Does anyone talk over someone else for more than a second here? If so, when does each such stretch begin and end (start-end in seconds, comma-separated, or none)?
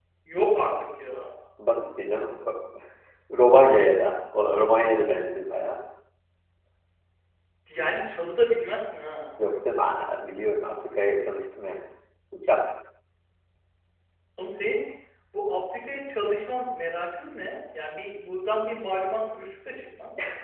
none